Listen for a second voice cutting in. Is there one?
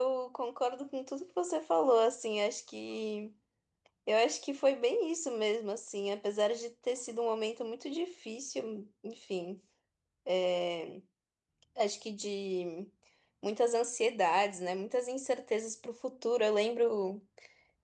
No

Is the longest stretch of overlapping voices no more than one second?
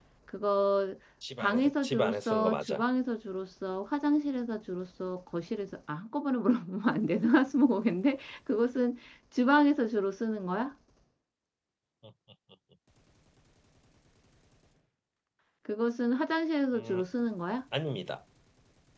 No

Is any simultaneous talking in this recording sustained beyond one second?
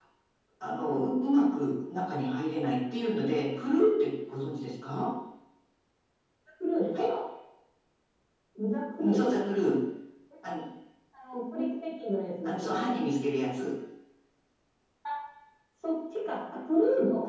No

